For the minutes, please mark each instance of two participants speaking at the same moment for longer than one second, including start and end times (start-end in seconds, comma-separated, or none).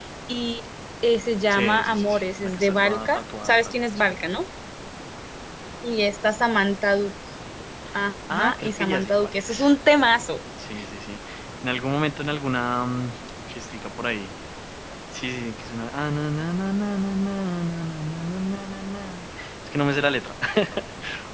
1.5-4.1, 8.3-9.5